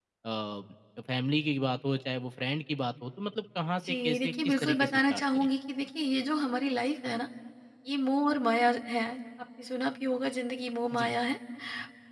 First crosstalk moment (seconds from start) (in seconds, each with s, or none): 3.8 s